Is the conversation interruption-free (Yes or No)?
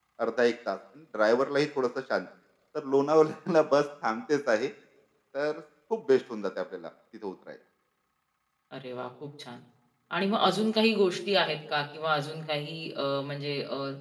Yes